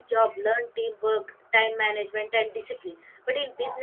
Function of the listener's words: listening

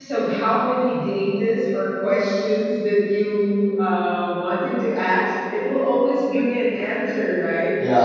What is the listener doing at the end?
listening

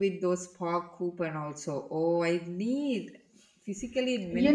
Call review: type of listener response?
taking over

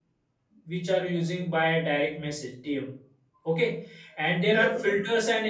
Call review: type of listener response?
listening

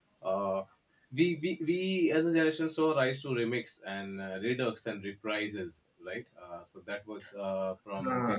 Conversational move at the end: listening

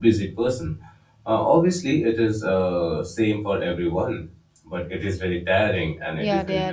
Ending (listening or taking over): taking over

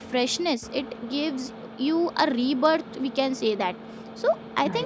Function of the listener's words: listening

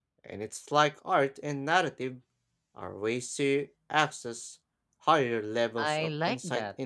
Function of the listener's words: taking over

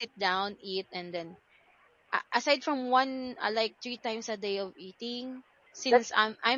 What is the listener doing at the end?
listening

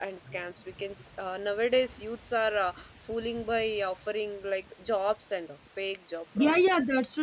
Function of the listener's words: taking over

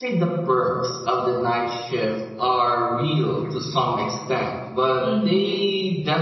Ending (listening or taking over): listening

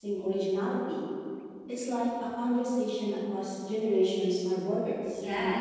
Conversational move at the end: taking over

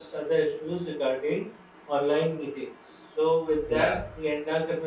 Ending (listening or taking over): listening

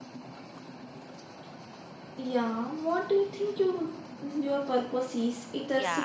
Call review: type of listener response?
taking over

